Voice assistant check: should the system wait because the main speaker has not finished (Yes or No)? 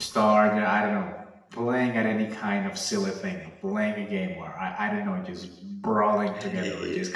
No